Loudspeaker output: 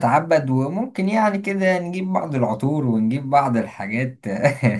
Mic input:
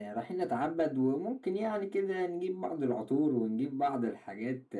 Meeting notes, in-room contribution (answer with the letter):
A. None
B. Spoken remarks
A